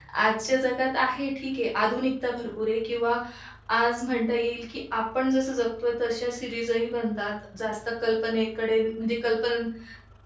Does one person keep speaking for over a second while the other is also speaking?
No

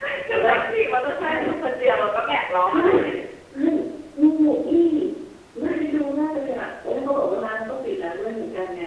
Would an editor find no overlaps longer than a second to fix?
Yes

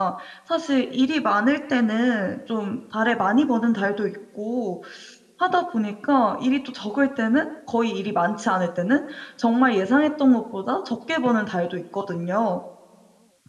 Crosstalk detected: No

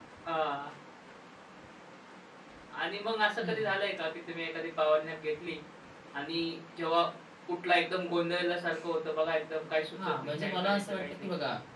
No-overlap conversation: No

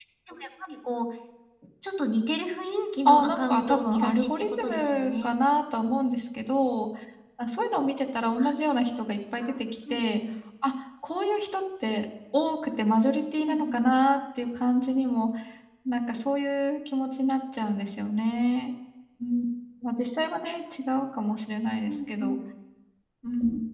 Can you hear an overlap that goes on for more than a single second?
Yes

